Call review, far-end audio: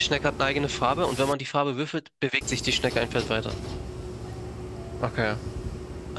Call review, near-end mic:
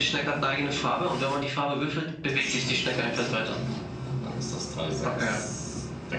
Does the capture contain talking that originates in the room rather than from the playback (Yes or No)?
Yes